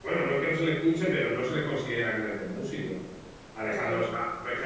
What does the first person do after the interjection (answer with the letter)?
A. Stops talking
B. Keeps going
B